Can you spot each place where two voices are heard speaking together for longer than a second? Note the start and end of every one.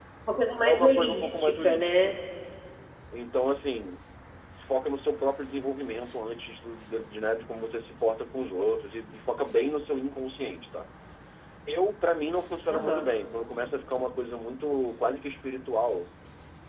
0.6-2.1

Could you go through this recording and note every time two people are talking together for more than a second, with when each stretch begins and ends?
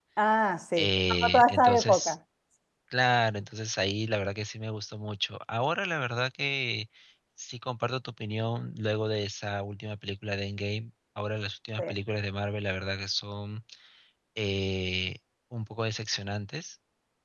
0.8-2.1

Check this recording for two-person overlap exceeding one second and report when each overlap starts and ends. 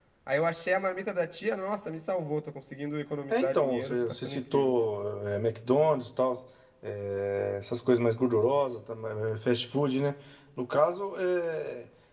3.3-4.8

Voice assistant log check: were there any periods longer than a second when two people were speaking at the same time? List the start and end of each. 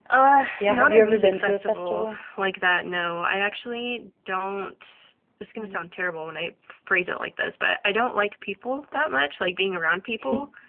0.5-2.2

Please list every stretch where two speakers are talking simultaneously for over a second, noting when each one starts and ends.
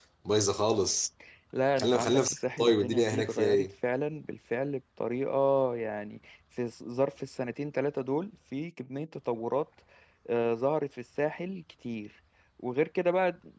1.8-3.6

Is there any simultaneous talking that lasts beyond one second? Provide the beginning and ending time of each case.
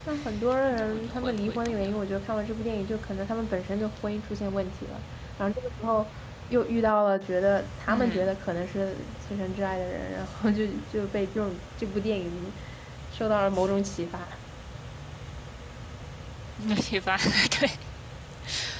0.7-1.9

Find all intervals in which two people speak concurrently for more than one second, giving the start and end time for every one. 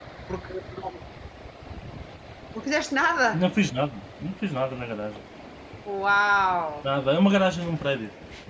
none

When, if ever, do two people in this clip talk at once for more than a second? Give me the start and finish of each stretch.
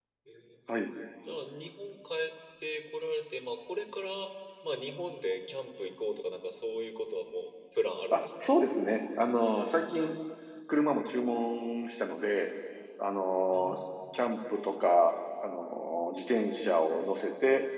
none

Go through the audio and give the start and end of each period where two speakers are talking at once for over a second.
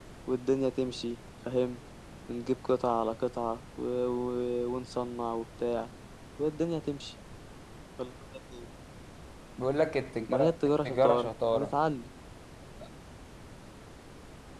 10.3-11.7

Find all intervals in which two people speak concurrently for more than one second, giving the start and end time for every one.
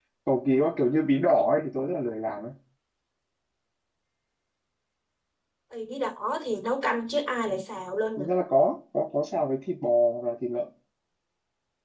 none

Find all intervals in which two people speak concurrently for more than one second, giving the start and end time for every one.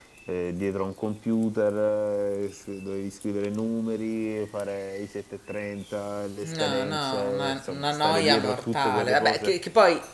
6.4-9.6

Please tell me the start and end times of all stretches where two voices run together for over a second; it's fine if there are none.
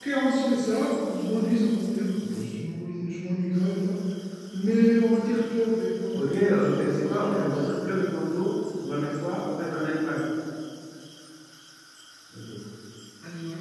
6.1-7.7

